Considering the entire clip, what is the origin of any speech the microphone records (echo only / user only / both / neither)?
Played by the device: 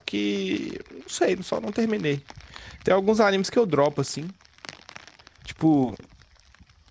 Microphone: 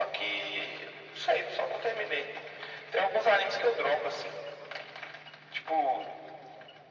echo only